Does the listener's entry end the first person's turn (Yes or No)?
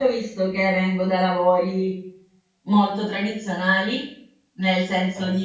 No